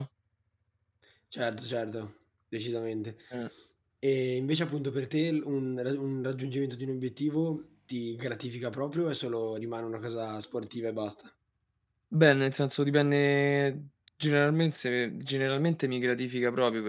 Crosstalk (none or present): none